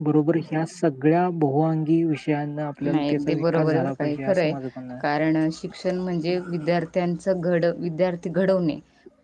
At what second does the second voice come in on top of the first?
2.9 s

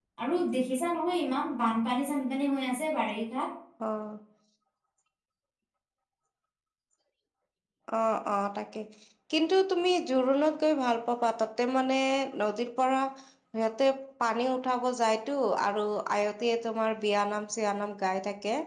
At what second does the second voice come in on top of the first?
none

